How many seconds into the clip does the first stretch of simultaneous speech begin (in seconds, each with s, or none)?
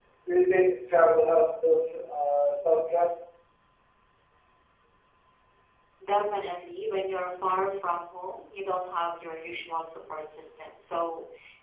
none